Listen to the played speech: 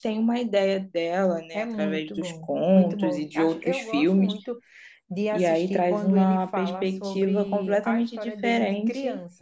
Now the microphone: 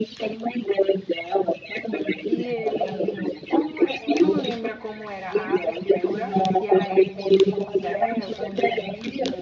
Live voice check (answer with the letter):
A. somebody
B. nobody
A